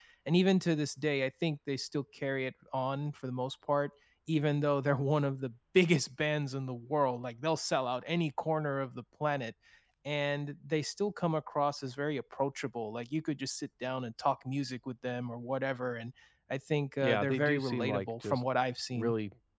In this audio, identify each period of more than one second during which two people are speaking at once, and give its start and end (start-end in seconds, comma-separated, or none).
17.0-18.4